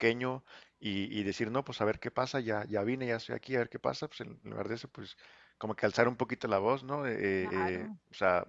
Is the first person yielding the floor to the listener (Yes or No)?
No